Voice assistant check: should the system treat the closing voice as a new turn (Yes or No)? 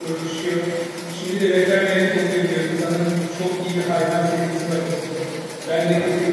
No